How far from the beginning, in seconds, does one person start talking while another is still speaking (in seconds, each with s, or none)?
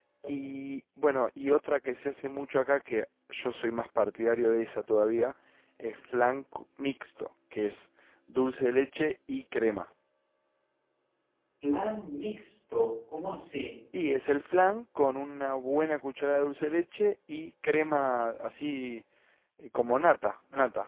none